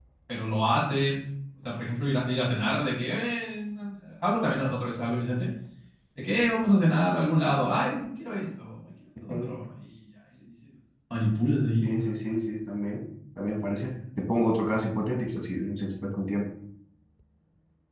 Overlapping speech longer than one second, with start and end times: none

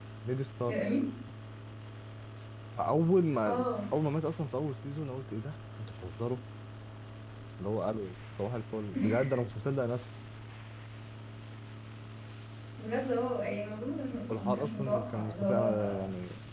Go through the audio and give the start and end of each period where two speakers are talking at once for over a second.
14.4-16.0

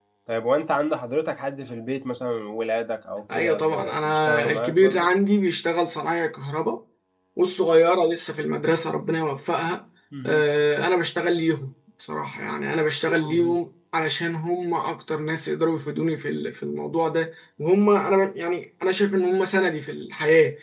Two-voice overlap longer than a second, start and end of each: 3.3-5.1

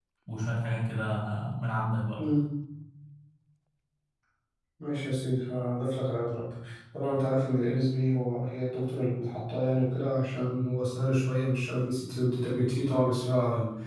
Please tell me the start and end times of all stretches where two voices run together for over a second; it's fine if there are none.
none

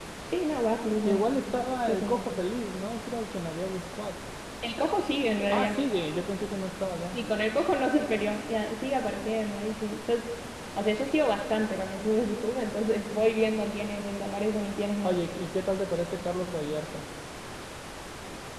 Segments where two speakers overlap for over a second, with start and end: none

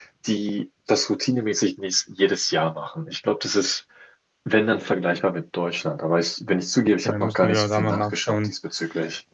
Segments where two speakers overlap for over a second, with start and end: 7.0-8.5

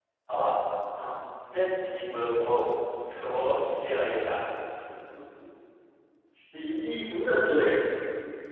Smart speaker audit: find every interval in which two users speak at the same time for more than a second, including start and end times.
none

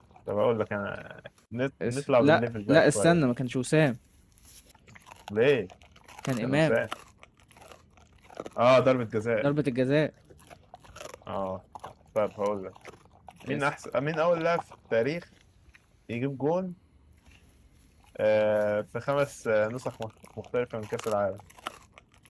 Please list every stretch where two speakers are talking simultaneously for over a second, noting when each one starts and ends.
1.9-3.2

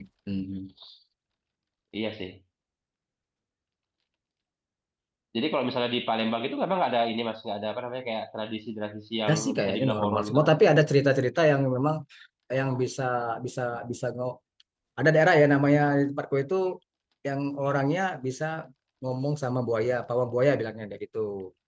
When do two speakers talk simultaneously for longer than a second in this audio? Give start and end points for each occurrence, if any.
9.3-10.5

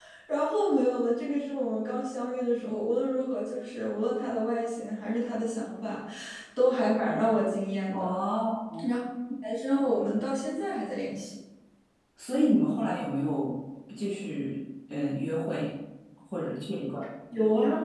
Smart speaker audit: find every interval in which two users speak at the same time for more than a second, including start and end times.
none

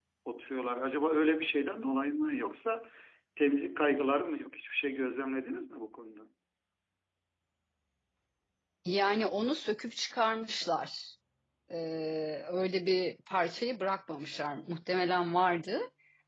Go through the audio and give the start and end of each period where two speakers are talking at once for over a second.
none

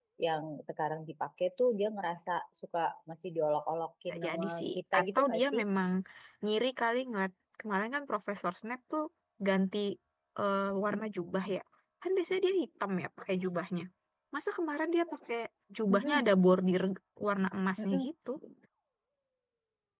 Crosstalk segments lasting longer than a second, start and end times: 4.1-5.6

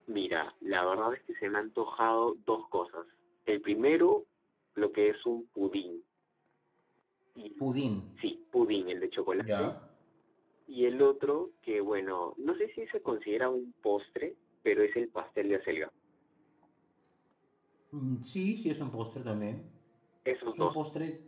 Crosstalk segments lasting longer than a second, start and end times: none

